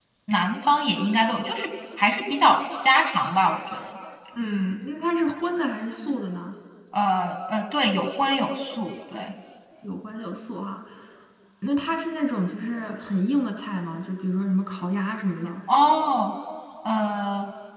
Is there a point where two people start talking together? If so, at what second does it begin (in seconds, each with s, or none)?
none